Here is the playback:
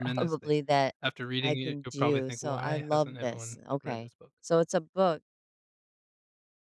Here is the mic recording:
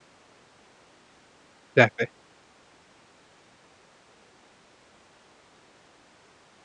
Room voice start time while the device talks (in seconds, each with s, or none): 1.8 s